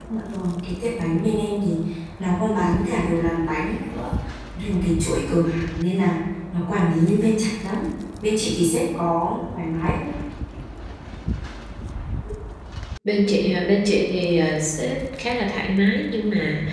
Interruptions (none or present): none